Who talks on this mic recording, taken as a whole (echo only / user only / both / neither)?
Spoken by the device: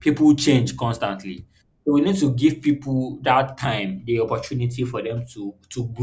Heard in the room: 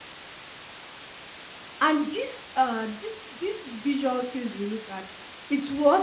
user only